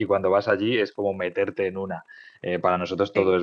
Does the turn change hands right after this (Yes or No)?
No